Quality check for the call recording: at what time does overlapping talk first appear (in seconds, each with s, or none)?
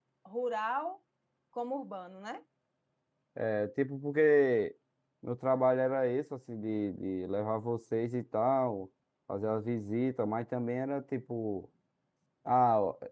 none